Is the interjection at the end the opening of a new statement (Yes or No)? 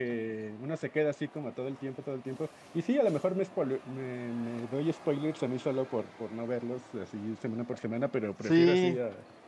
Yes